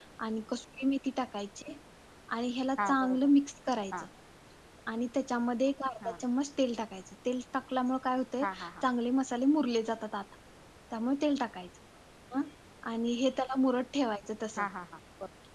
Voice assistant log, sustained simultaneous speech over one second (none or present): none